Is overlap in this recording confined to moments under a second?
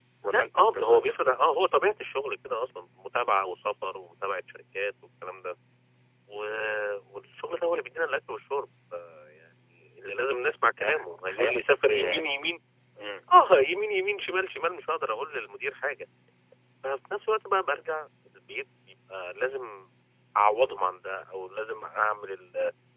No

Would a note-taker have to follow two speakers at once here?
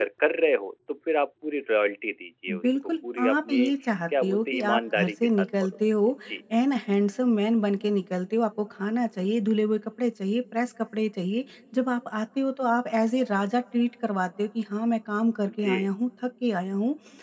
Yes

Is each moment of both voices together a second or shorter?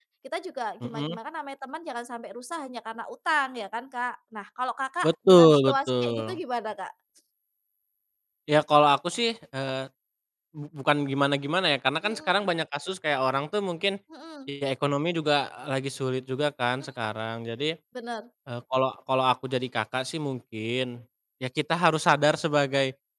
No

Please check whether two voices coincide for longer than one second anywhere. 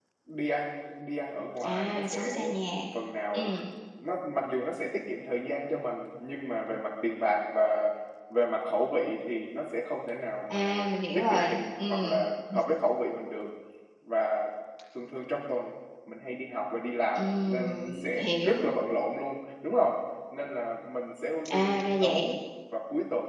Yes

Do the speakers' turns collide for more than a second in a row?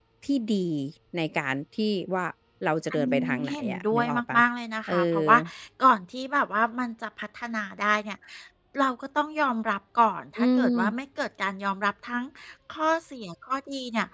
Yes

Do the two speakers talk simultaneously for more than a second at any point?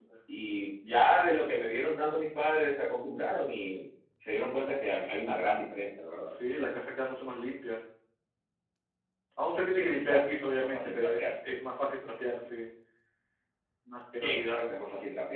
Yes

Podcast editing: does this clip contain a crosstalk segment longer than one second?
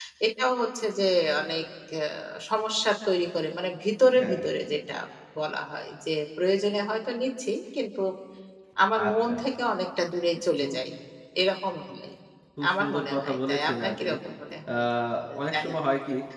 Yes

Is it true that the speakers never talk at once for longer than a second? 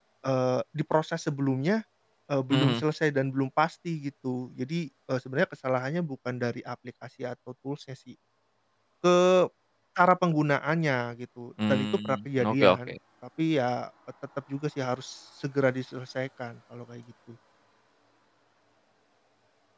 No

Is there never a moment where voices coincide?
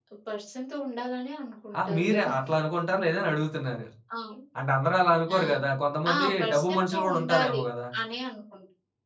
No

